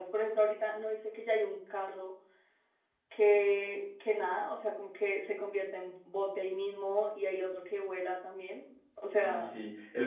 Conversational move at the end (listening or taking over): taking over